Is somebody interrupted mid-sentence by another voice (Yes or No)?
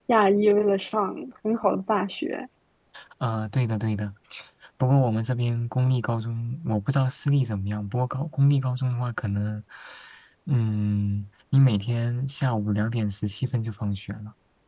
No